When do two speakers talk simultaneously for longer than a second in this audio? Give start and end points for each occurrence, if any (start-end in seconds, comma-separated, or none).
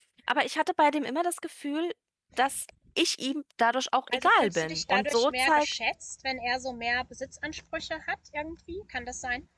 4.1-5.7